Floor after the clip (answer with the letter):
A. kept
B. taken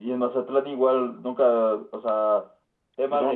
A